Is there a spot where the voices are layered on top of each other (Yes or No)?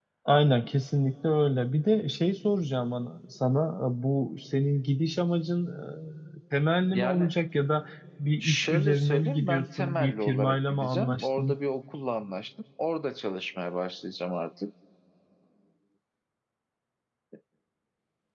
Yes